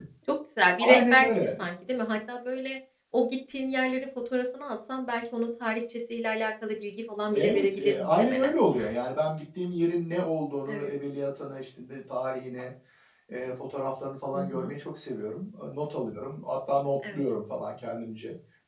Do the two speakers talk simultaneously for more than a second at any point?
Yes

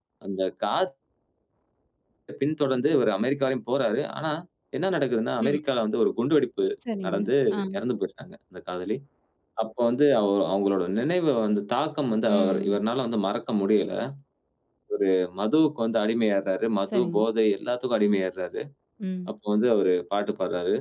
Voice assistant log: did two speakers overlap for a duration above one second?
No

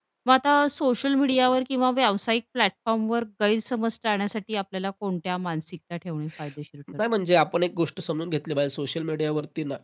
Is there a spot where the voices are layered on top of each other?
No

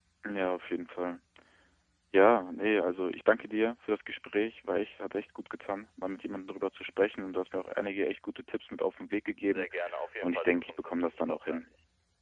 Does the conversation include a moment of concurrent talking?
Yes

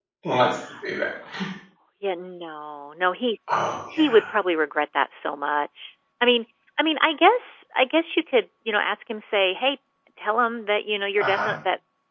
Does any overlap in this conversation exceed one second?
No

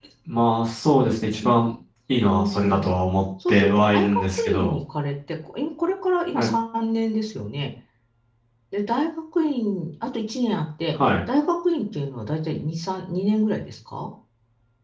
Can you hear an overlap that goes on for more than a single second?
Yes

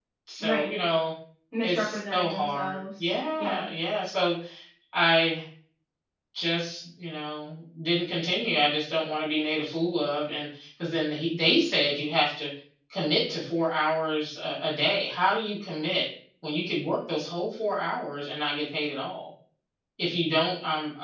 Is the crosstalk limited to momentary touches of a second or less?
No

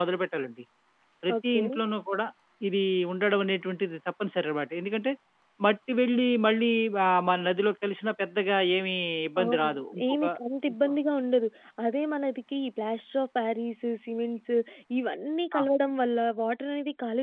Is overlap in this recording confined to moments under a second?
Yes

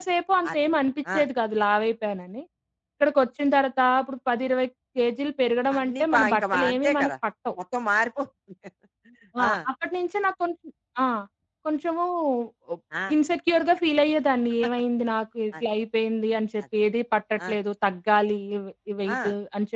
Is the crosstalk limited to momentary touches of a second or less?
No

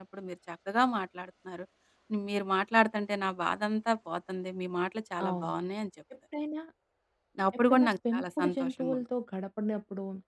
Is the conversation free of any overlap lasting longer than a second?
No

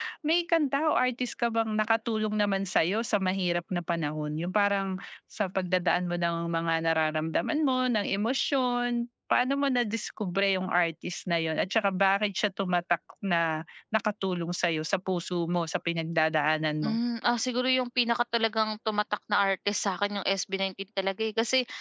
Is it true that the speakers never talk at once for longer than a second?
Yes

